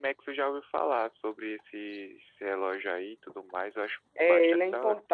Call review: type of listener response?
taking over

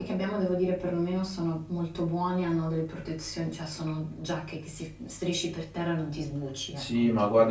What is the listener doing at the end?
taking over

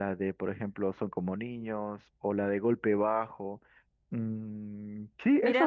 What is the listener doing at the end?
taking over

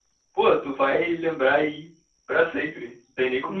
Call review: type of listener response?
taking over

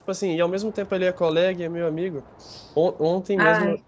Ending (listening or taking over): listening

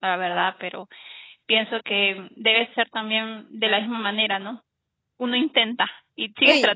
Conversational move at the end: taking over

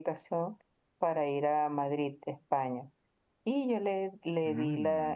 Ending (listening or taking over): listening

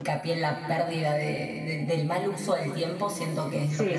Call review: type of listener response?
listening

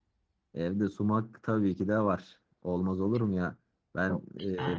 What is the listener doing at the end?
listening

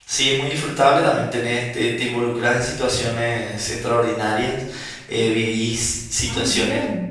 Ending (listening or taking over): listening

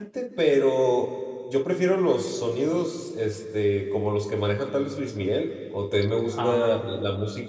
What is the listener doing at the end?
listening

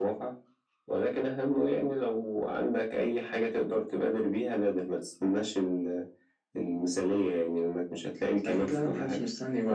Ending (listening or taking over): taking over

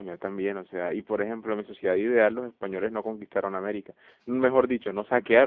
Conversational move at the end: listening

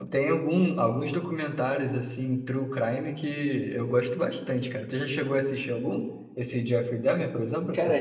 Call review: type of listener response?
taking over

